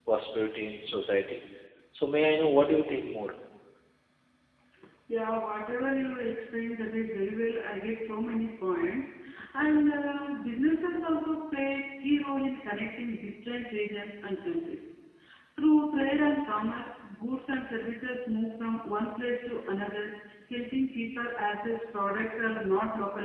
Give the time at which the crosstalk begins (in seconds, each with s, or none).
none